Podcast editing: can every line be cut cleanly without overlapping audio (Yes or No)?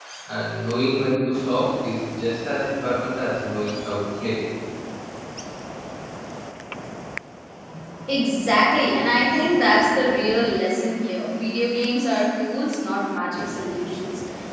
Yes